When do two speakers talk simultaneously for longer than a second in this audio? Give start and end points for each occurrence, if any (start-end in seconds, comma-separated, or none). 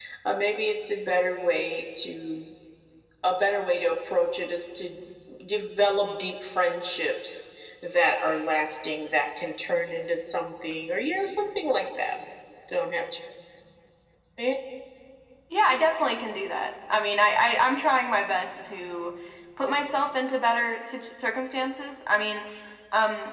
none